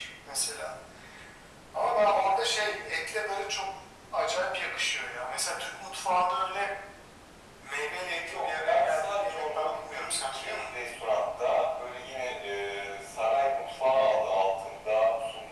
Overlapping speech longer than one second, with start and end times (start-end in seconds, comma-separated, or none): 8.2-10.8